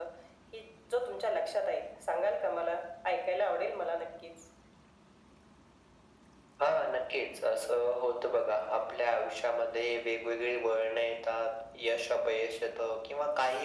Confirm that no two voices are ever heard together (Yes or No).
Yes